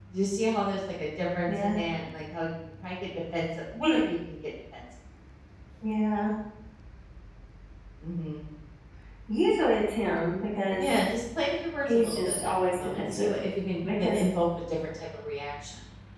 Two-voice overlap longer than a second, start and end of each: 11.8-13.3

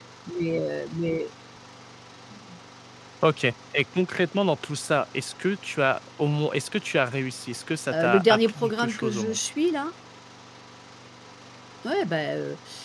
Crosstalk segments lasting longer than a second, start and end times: 7.9-9.4

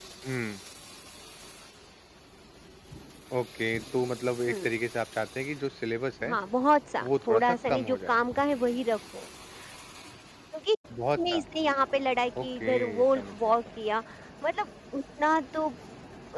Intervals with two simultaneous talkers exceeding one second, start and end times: 7.0-8.2, 12.4-13.8

